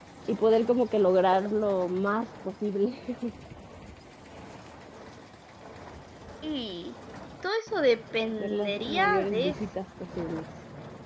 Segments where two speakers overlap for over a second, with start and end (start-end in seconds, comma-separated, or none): 8.4-9.6